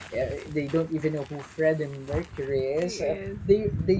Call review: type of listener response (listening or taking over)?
listening